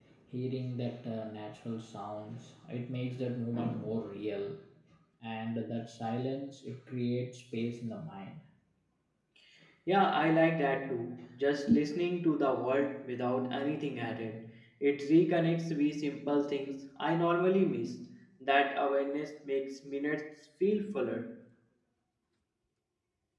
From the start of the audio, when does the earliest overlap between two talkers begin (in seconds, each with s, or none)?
none